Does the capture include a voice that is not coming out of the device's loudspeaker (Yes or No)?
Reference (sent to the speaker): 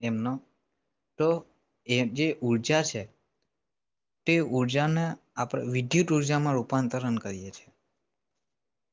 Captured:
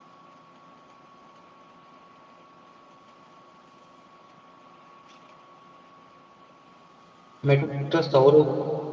Yes